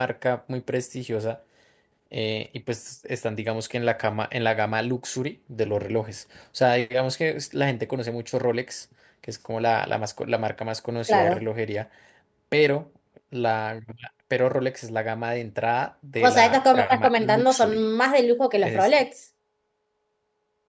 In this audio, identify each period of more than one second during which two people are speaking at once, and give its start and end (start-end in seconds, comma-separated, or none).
16.2-17.8